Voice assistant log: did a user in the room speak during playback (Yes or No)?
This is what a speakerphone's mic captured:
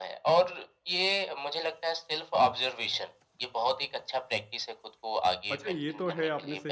Yes